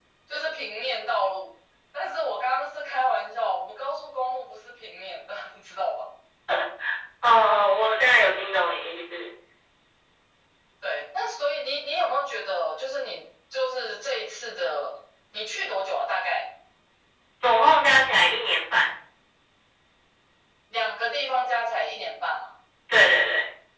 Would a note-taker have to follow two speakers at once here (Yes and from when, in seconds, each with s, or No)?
No